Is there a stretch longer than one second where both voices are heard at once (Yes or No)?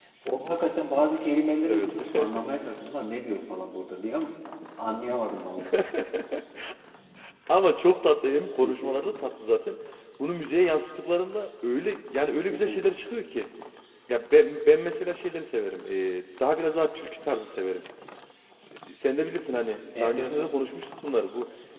No